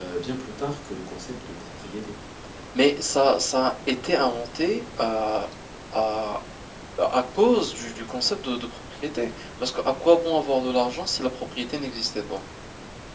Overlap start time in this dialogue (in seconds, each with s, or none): none